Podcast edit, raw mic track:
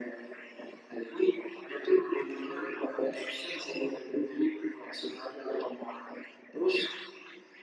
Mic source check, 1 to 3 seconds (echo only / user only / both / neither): echo only